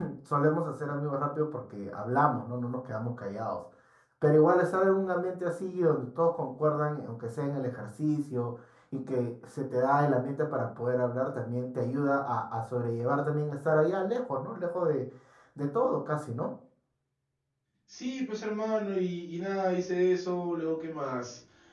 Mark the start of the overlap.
none

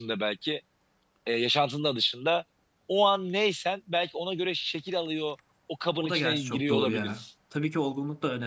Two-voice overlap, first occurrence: 6 s

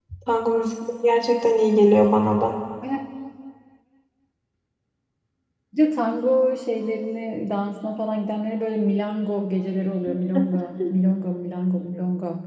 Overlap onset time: none

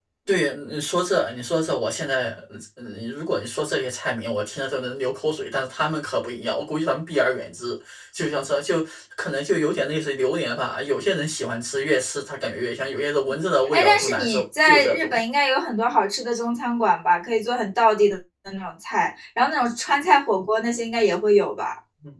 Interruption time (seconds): 14 s

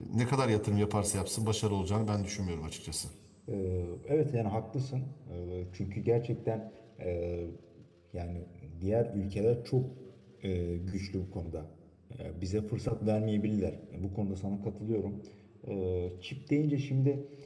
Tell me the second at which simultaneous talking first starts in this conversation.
none

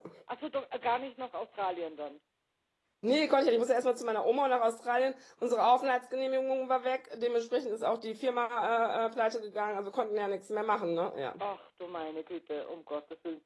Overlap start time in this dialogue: none

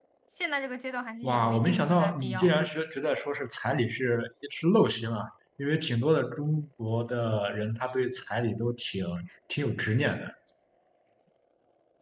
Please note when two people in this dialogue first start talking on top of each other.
1 s

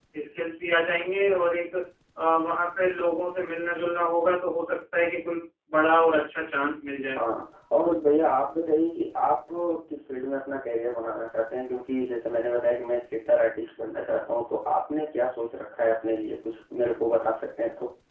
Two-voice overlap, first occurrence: none

